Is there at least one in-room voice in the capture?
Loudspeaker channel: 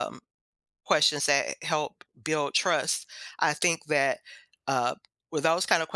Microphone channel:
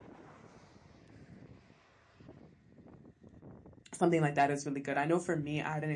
Yes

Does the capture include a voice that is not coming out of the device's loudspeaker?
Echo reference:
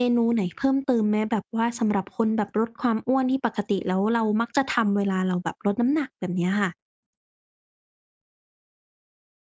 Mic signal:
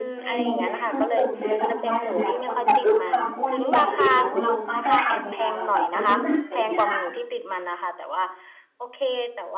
Yes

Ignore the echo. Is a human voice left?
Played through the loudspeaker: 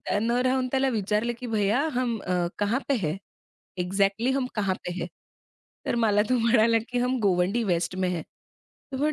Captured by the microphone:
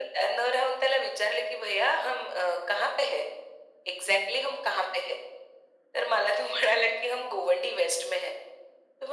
No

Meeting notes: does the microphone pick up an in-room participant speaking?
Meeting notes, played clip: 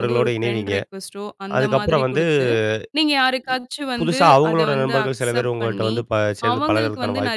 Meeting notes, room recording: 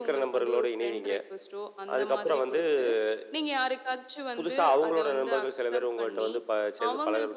No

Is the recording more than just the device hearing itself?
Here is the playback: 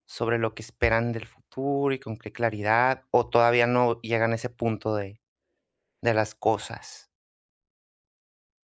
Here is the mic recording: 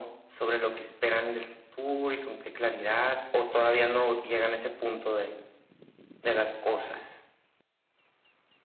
No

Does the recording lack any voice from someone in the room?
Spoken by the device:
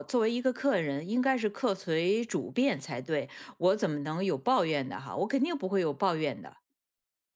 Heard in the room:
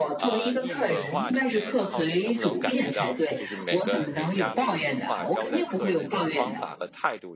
No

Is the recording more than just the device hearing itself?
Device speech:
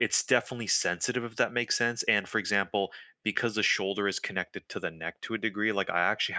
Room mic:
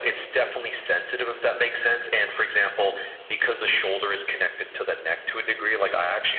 No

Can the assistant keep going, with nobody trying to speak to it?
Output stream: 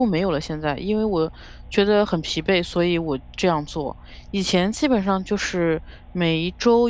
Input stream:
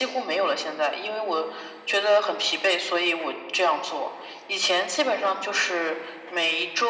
Yes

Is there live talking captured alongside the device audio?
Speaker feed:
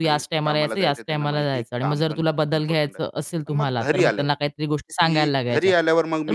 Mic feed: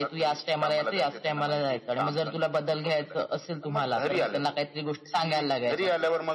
No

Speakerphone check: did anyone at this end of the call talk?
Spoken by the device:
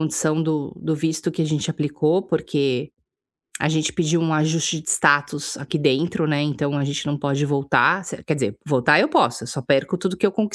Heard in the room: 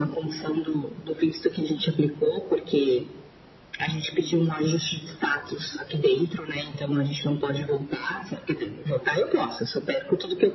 No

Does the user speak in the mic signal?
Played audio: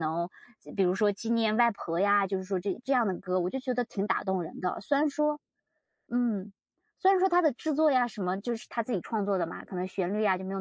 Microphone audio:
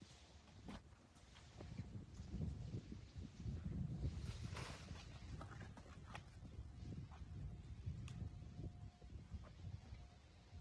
No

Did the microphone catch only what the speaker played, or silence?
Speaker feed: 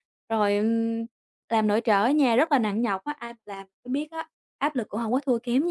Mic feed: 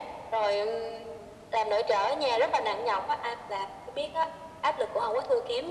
Yes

